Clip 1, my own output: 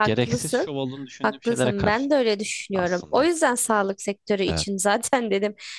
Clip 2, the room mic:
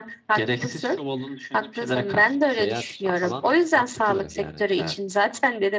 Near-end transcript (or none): seyahat için falan mantıklı yani.